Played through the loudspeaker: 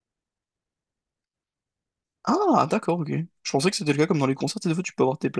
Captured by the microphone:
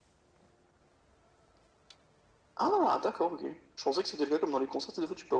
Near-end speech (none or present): none